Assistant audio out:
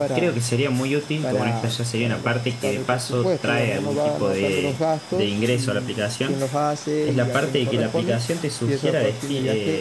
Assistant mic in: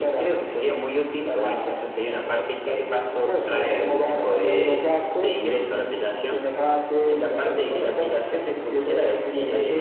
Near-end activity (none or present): none